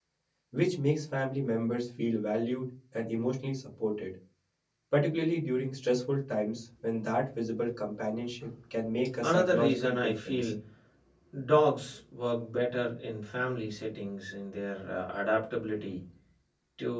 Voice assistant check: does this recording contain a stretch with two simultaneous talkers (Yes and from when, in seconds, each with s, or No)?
Yes, from 9.2 s